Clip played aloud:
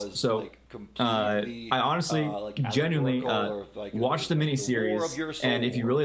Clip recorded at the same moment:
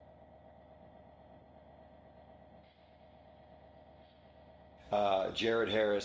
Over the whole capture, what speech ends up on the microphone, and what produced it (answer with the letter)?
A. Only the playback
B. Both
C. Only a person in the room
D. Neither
C